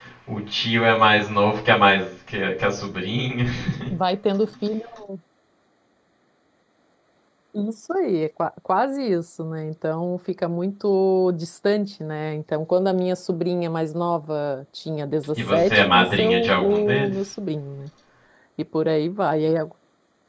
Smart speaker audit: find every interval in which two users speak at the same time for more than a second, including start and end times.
15.3-17.1

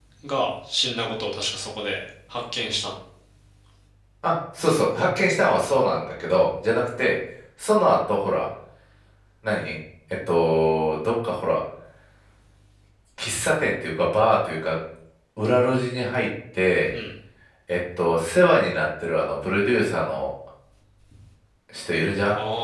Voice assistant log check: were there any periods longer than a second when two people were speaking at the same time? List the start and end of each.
none

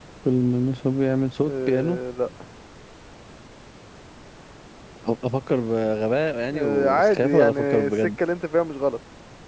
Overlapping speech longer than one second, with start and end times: 6.5-8.0

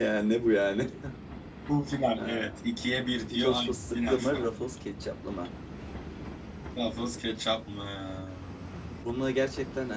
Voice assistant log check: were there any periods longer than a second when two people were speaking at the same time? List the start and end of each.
3.3-4.5

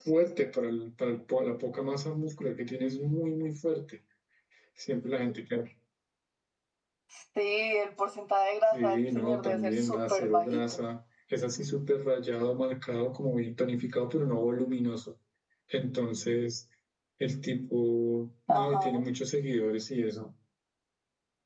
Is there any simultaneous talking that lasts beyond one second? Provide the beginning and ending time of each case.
8.7-10.8

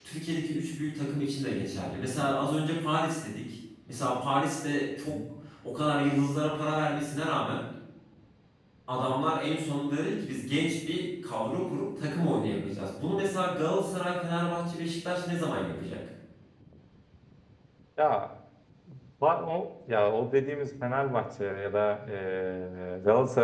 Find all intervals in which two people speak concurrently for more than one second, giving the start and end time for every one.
none

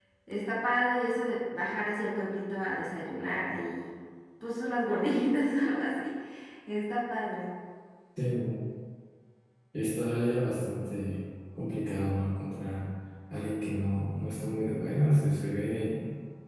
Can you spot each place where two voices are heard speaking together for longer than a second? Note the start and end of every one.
none

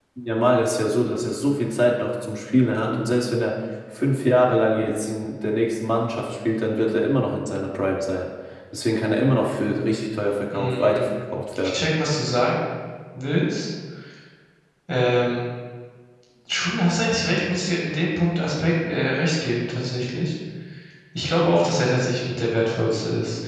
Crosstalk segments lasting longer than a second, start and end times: none

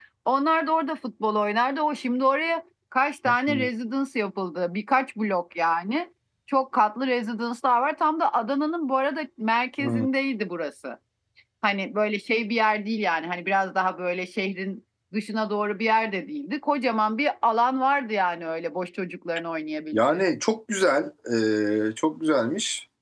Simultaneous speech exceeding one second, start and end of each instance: none

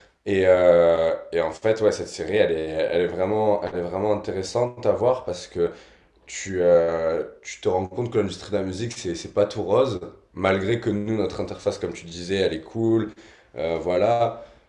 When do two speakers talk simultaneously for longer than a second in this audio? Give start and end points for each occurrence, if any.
none

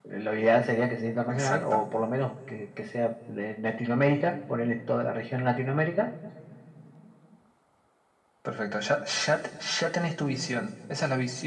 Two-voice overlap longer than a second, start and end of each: none

